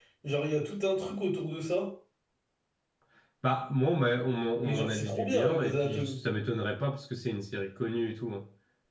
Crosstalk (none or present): present